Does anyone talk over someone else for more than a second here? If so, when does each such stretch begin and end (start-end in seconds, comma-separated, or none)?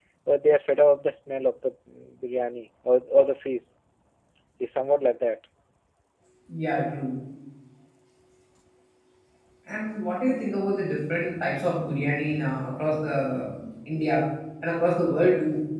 none